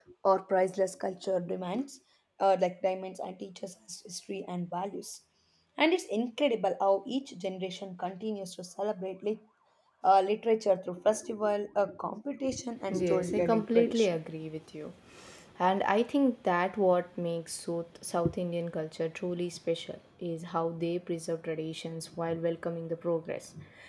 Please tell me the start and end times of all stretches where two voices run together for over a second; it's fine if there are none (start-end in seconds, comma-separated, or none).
12.9-14.2